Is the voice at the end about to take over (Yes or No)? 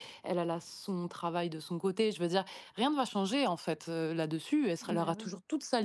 No